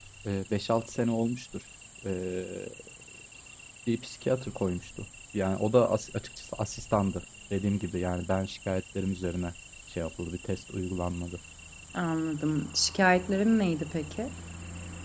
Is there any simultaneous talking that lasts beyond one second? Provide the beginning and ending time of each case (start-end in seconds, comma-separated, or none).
none